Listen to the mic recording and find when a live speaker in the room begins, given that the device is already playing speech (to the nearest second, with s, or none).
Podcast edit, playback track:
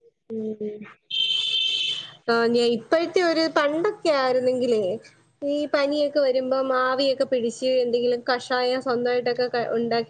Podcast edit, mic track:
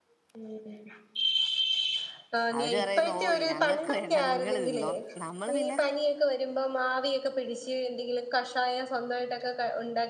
3 s